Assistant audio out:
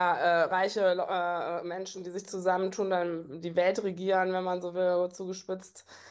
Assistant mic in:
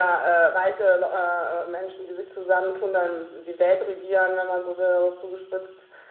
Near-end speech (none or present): none